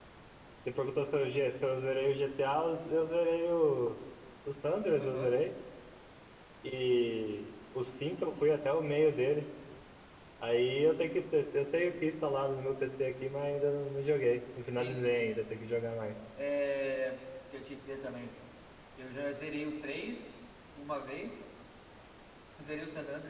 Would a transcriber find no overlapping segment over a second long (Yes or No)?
Yes